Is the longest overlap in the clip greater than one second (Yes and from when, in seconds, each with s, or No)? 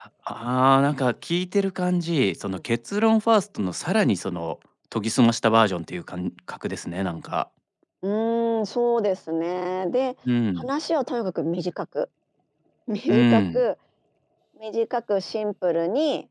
No